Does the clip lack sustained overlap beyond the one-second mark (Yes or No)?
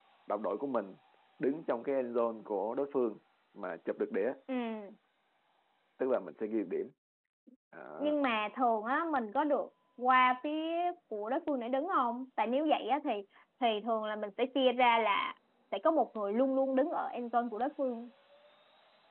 Yes